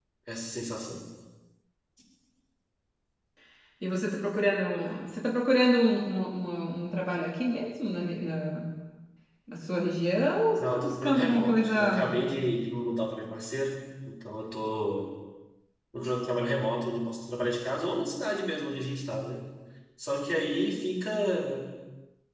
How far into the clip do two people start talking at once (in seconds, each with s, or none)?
10.6 s